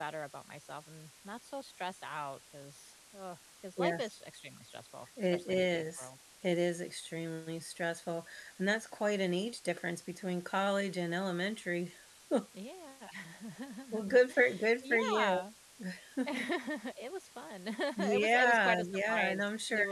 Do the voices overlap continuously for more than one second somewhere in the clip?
Yes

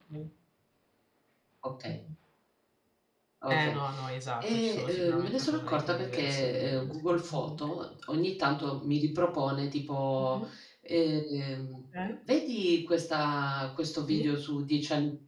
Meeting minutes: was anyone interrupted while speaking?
Yes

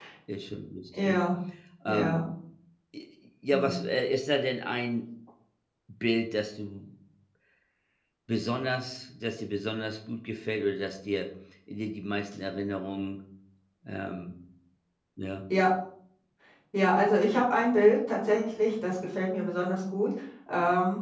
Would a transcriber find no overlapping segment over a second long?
Yes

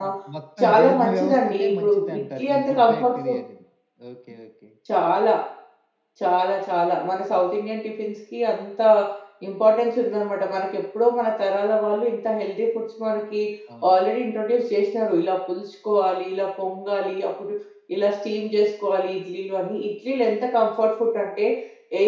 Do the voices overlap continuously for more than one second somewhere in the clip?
Yes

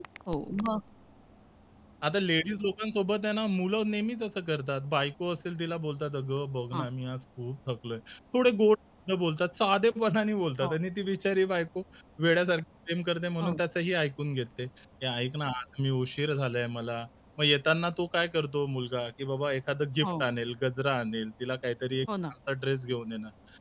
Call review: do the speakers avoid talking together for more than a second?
Yes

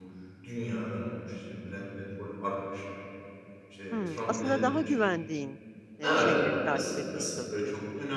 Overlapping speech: Yes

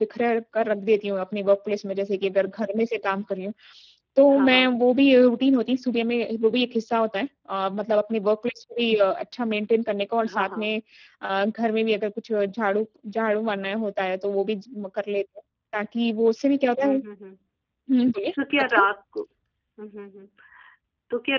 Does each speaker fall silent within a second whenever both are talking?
Yes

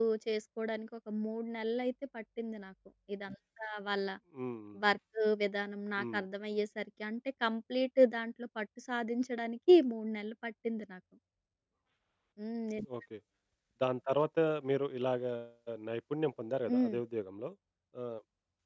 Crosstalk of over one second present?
No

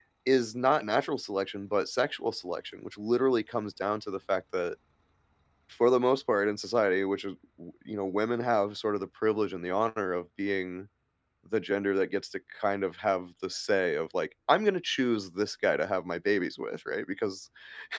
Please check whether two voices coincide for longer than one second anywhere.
No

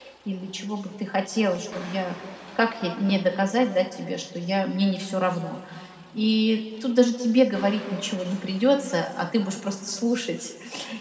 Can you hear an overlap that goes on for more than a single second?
No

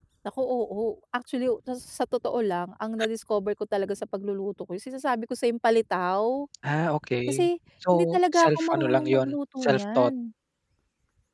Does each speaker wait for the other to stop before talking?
No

